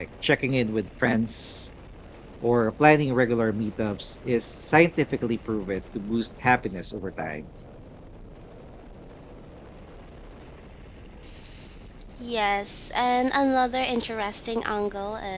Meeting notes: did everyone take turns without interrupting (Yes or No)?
Yes